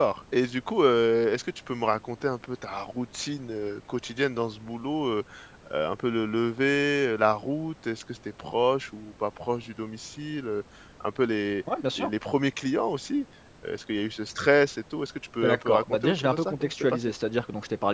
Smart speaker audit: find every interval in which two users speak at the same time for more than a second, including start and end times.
15.4-17.1

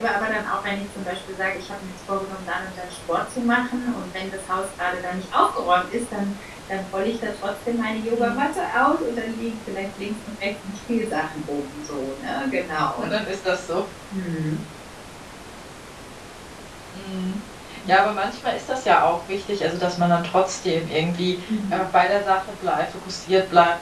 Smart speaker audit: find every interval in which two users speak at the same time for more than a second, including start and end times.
none

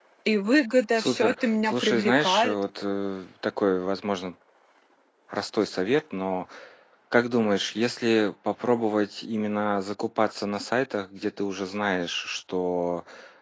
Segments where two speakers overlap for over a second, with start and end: 1.0-2.6

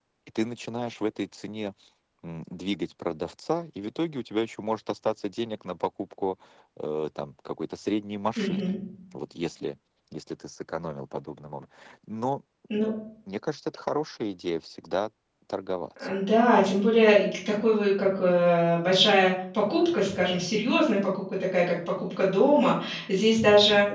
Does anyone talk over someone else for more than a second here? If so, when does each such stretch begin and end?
none

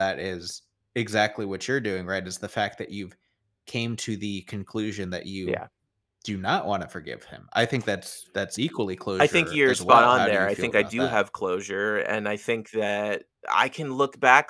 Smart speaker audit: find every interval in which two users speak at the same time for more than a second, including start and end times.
9.2-11.2

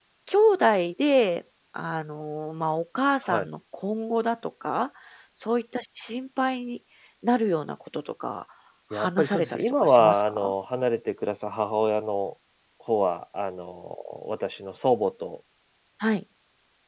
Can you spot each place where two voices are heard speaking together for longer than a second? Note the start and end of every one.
8.9-10.5

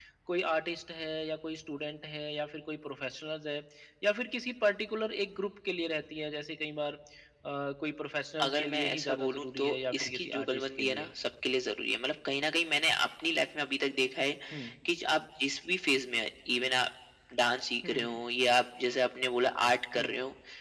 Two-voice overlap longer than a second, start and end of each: 8.4-11.1

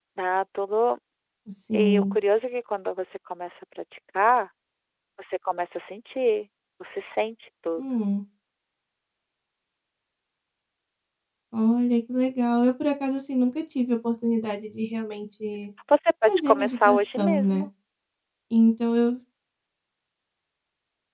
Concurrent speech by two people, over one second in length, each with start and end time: 16.3-17.7

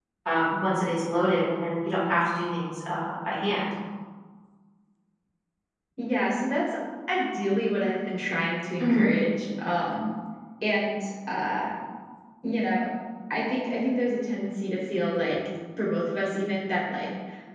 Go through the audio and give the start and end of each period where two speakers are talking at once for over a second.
none

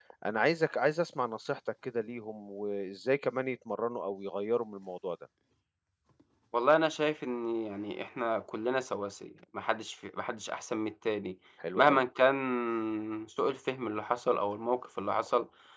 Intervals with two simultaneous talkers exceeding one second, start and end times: none

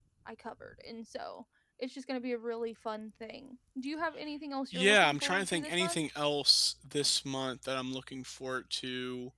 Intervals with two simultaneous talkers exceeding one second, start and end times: 4.7-6.0

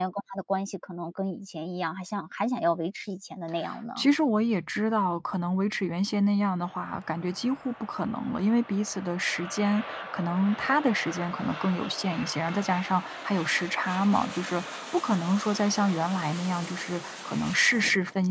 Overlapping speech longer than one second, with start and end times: none

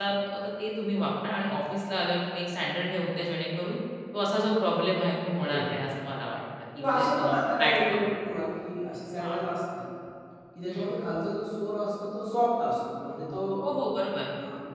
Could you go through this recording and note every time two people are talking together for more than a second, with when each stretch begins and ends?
6.8-8.0

